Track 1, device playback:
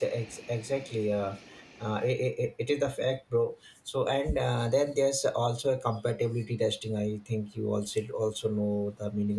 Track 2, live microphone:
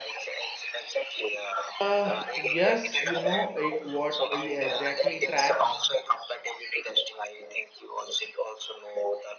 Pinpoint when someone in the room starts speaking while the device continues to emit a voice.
2 s

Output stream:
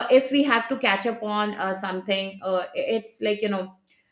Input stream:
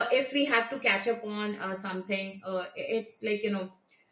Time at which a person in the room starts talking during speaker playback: none

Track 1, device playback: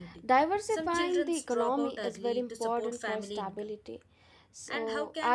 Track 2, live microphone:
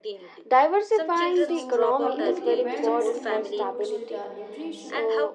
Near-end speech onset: 1 s

